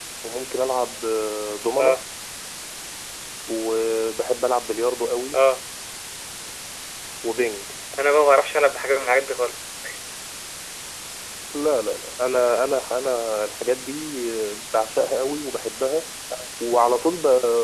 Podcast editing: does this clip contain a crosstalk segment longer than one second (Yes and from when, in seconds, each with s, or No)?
No